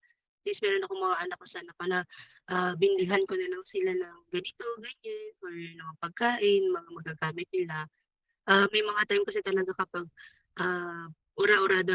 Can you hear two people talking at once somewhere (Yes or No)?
No